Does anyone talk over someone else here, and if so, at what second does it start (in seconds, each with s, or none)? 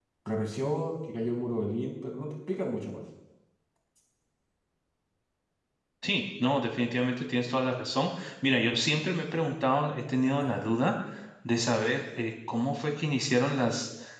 none